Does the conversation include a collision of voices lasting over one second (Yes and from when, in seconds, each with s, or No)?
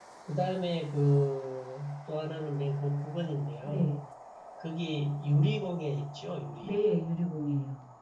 No